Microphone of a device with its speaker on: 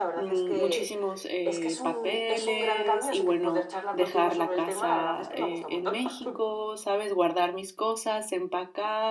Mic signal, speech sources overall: both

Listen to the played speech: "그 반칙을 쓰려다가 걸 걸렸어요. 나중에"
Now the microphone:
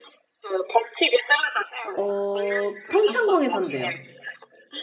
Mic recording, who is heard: both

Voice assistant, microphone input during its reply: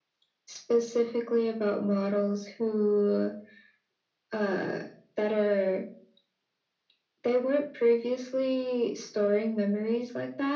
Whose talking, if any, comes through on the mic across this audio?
echo only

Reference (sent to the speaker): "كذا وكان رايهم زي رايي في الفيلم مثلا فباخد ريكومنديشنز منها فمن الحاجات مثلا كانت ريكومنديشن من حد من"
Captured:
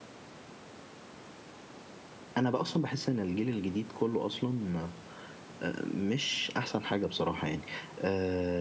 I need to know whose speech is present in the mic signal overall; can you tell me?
user only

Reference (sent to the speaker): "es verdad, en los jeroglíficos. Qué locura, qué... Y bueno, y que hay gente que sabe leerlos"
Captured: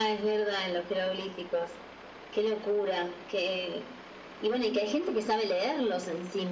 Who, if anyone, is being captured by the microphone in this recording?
echo only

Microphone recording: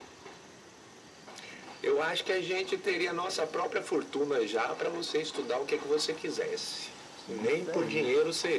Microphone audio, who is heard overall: both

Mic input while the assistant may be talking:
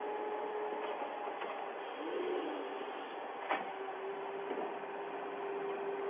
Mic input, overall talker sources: neither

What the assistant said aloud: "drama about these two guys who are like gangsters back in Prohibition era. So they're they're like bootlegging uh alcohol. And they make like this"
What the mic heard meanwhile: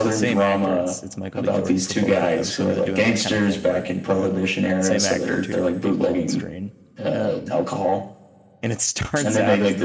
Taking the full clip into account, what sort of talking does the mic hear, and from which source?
both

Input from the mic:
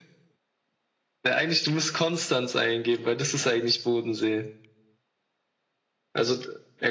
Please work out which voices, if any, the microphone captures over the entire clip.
echo only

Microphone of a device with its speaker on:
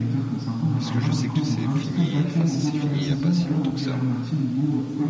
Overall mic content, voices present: both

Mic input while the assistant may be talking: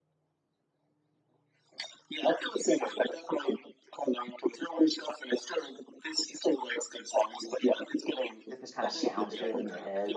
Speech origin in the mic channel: both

